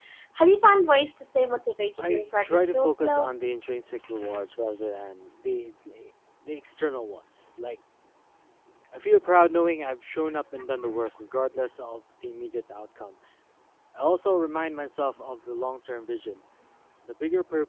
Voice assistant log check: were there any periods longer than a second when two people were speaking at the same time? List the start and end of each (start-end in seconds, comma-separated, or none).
2.1-3.3